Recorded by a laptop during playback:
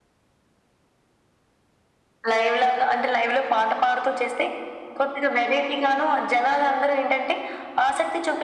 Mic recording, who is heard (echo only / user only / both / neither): echo only